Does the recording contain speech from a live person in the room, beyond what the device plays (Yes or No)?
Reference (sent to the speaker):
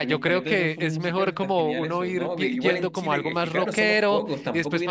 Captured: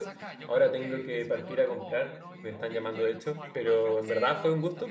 Yes